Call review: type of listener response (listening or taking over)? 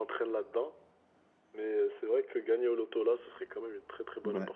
taking over